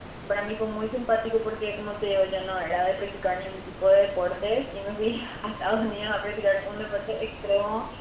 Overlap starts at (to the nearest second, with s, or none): none